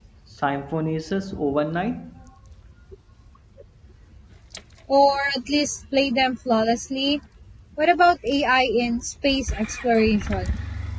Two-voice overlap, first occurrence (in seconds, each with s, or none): none